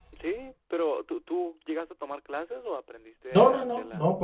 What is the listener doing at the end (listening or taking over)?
taking over